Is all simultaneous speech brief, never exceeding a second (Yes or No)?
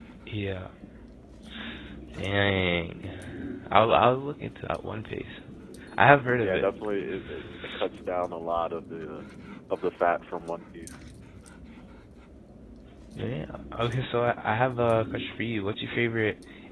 Yes